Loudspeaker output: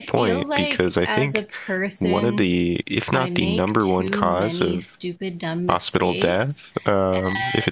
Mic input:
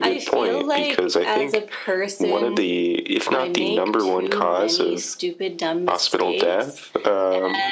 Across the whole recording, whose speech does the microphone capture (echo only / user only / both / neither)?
echo only